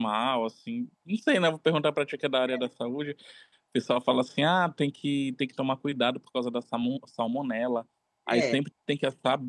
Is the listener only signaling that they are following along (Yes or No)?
Yes